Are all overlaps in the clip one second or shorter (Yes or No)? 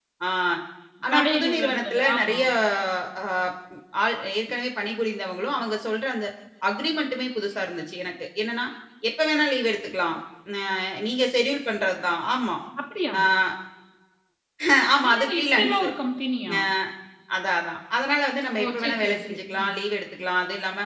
No